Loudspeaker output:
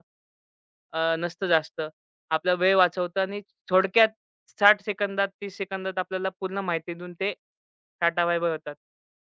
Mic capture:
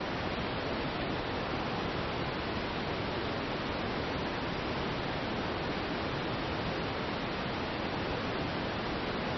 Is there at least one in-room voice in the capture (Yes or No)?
No